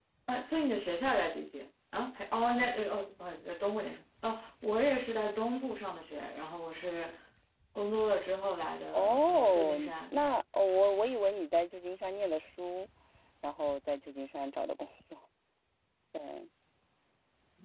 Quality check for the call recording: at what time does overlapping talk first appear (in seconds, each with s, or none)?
8.9 s